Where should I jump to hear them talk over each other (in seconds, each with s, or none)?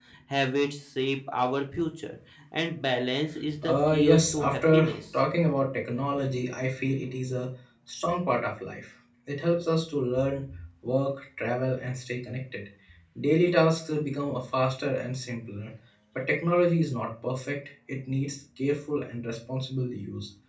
3.6 s